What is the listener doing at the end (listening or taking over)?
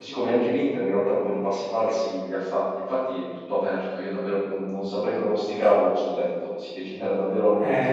taking over